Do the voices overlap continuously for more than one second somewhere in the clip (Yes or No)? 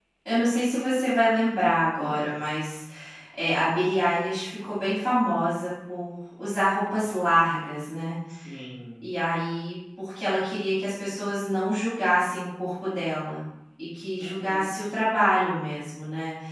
No